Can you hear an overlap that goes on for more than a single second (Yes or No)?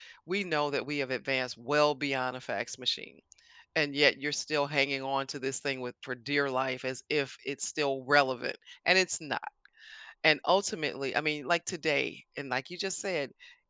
No